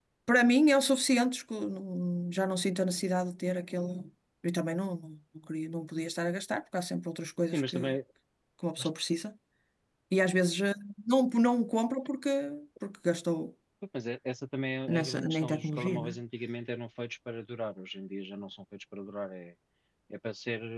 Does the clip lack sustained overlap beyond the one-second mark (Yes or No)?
No